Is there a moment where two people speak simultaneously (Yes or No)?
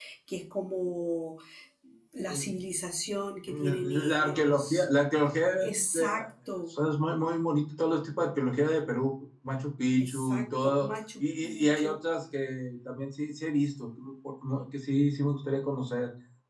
Yes